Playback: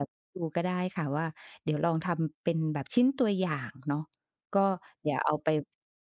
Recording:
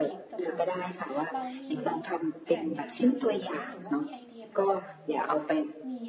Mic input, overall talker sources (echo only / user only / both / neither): both